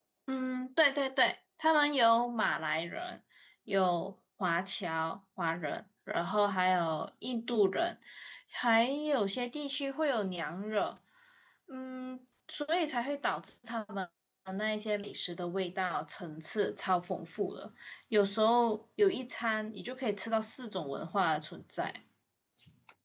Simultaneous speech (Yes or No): No